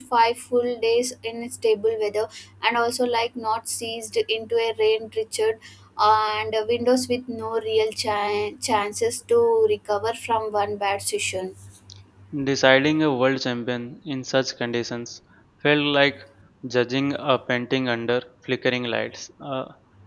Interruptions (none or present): none